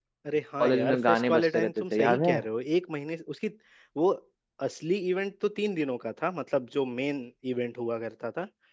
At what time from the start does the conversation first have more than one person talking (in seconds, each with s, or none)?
0.6 s